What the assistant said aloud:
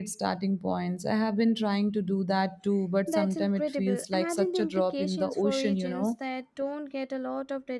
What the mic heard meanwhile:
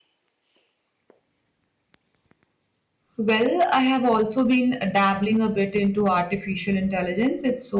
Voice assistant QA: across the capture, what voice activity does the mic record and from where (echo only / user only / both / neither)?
user only